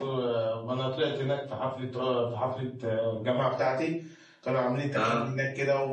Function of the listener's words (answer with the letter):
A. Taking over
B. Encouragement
B